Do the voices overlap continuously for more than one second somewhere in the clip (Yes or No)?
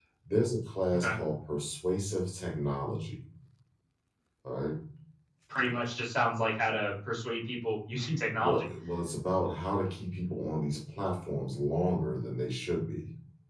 No